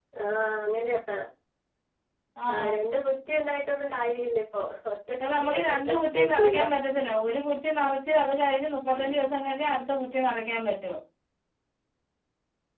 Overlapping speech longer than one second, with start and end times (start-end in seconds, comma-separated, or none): 5.2-6.6